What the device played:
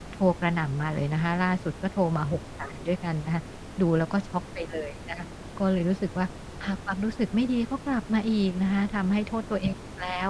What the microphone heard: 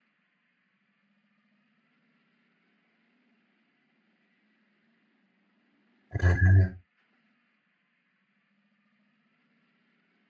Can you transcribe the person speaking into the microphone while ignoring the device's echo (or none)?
อา